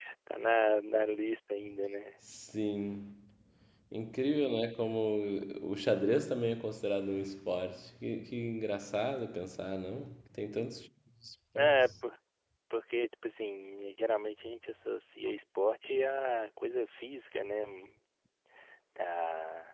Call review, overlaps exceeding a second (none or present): none